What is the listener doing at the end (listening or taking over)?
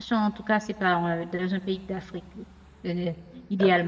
taking over